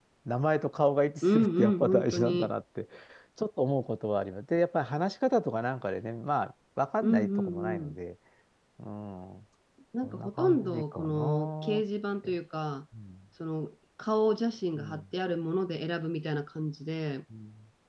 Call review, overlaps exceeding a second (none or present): present